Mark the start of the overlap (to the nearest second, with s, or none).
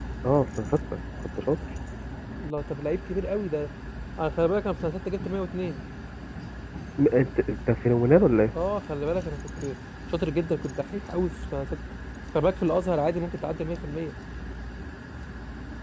none